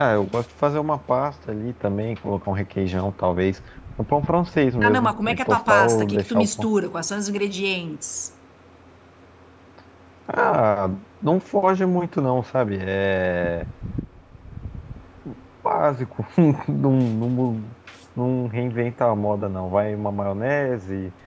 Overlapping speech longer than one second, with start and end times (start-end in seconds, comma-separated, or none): 4.8-6.7